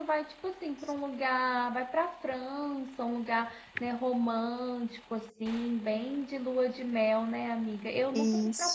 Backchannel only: Yes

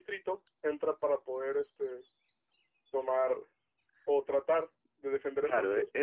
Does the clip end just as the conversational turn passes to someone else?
Yes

